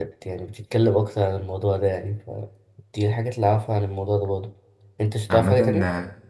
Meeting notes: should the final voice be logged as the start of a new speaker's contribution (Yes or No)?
Yes